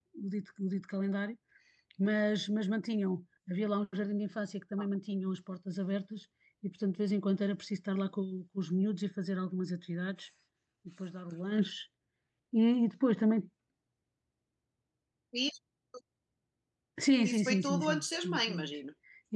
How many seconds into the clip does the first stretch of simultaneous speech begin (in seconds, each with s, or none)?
17.2 s